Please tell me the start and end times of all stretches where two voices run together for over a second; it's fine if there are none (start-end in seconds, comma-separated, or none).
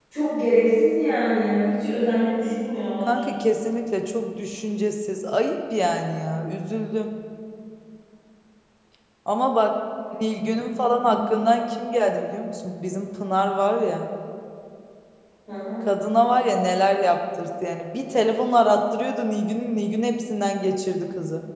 none